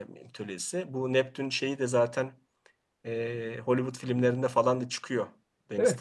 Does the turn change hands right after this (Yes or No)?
Yes